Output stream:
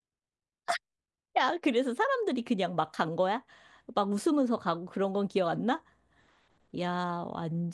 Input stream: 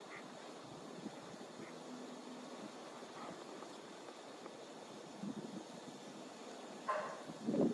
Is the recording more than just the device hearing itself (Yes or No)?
No